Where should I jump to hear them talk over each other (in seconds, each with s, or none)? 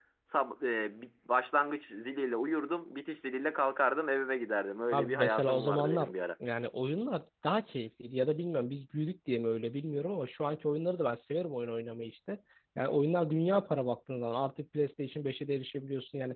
4.9 s